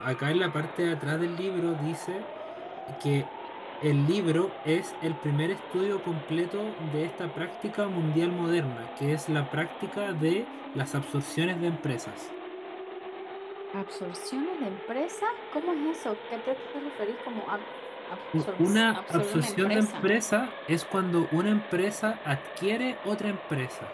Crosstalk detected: Yes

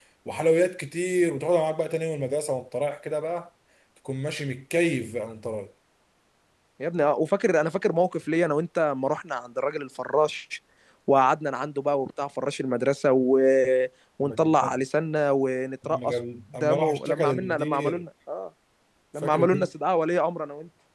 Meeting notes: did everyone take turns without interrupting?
No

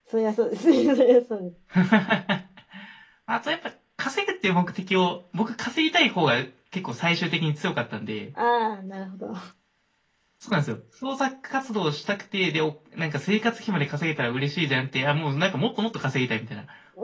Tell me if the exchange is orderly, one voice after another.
Yes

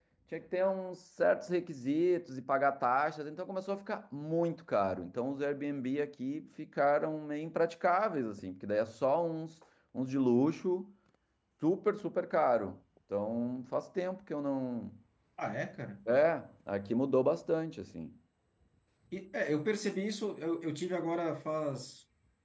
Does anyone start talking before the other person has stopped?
No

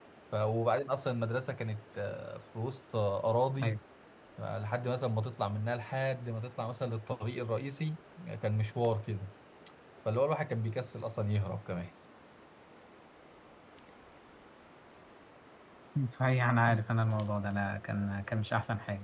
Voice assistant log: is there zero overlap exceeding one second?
Yes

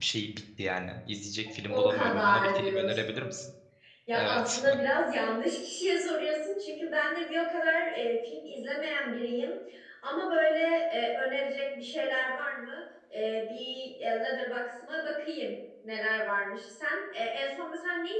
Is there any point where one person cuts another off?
Yes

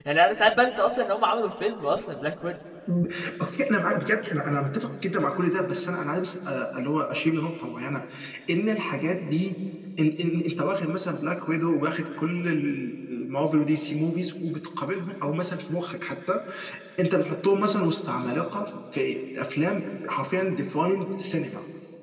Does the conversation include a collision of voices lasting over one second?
No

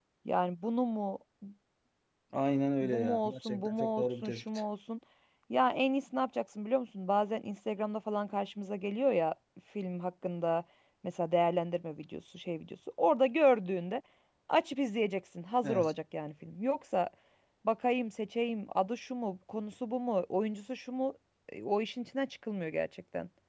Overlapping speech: Yes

